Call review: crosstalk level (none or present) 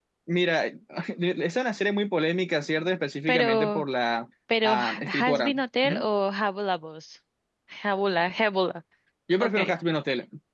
present